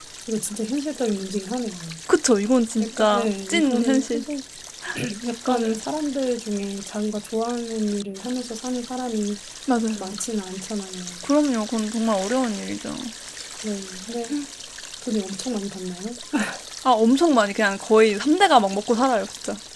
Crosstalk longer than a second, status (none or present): present